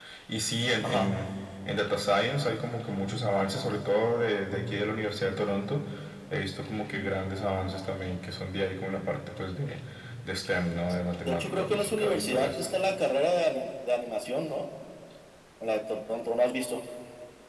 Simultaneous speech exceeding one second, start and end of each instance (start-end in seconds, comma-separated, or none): 11.2-12.6